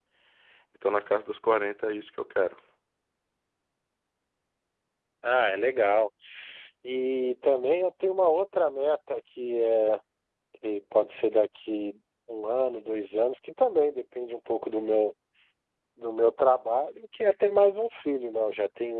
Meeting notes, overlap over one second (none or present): none